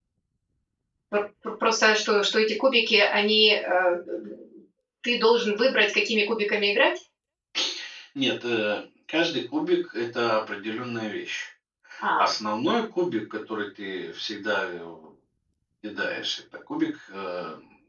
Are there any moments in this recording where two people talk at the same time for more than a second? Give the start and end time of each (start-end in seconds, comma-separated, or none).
none